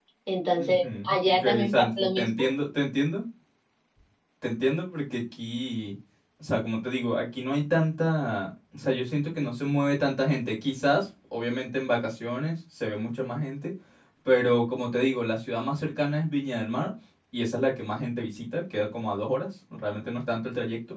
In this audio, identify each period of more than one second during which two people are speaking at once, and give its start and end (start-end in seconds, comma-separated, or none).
0.6-2.5